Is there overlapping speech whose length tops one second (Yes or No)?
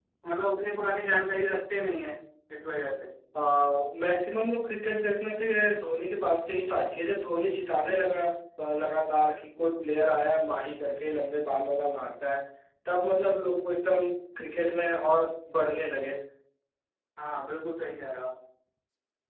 No